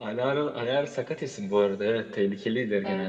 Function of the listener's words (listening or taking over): taking over